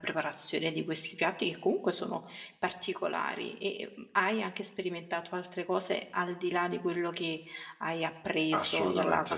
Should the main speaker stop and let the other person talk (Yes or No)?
Yes